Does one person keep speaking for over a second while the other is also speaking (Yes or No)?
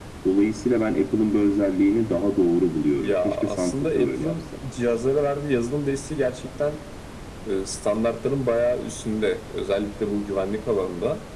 Yes